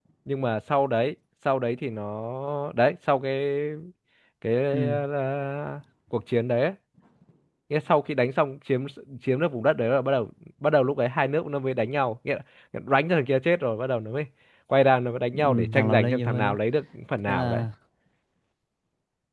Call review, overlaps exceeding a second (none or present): present